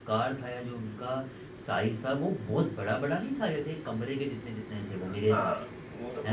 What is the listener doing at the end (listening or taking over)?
taking over